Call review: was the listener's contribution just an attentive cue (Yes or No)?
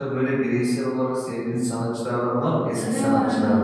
No